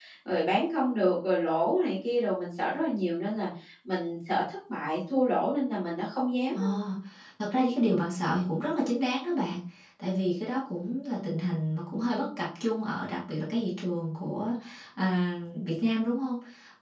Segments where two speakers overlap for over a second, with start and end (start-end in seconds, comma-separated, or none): none